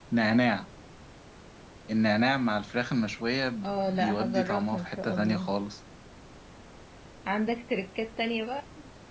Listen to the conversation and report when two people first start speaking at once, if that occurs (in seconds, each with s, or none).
3.6 s